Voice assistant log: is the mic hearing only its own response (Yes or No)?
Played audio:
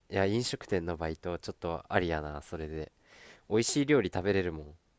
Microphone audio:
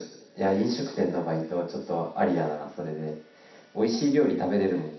Yes